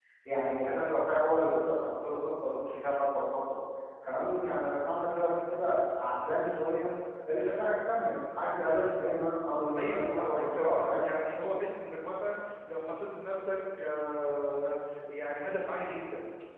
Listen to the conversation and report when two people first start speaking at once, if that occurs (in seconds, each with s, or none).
9.8 s